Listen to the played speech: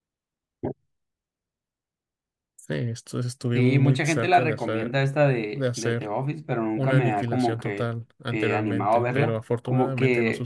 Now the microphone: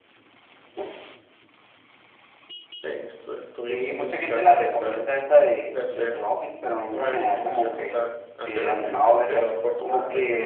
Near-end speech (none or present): none